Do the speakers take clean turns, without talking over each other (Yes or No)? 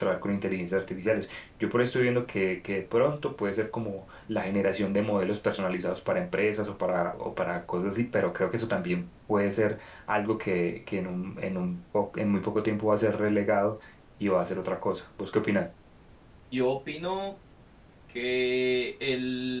Yes